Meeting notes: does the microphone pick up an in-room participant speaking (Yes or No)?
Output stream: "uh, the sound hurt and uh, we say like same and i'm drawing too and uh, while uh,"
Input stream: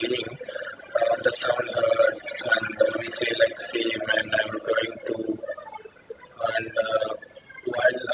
No